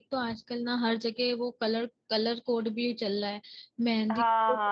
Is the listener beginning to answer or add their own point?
Yes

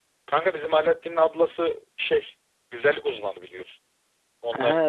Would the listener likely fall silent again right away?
Yes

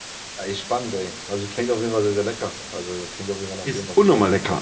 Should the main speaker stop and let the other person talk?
Yes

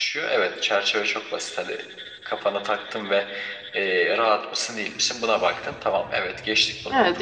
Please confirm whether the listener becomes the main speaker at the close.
Yes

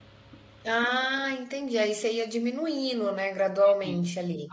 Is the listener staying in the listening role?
No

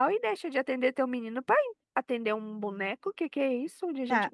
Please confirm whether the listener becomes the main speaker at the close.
Yes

